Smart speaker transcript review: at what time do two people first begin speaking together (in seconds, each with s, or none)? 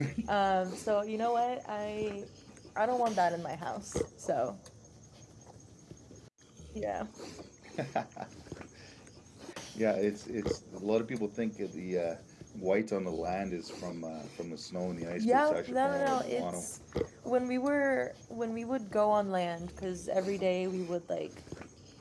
15.2 s